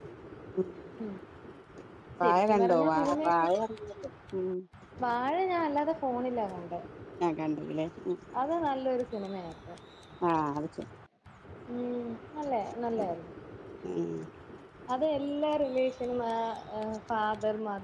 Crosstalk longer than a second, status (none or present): present